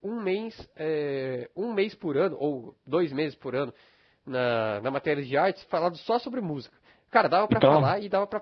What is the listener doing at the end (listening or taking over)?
listening